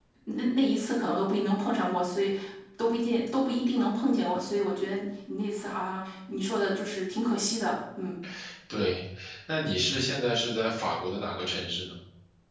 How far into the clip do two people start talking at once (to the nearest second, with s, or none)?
none